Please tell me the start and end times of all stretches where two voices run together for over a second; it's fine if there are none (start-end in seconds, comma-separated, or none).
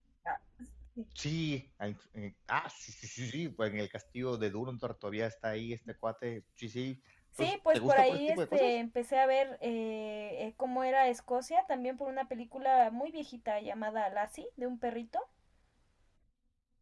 7.4-8.7